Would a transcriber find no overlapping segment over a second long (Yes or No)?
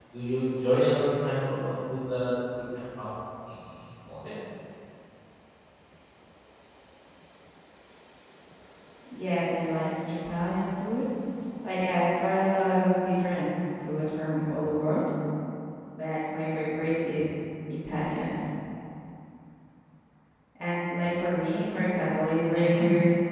Yes